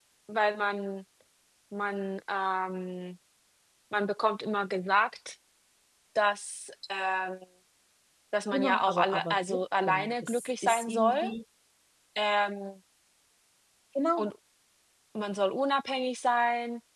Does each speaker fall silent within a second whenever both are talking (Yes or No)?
No